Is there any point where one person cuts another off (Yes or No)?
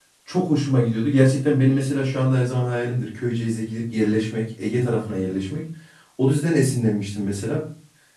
No